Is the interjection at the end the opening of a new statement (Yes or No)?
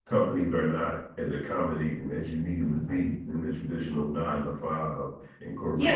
Yes